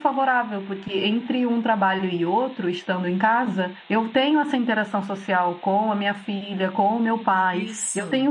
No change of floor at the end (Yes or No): Yes